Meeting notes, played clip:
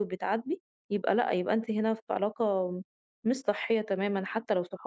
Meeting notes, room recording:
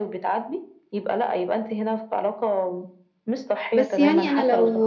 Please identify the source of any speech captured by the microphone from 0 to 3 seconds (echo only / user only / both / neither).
echo only